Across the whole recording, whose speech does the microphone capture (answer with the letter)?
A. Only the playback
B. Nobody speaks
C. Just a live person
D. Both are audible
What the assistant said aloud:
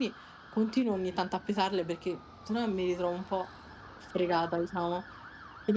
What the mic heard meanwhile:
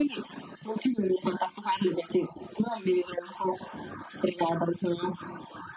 A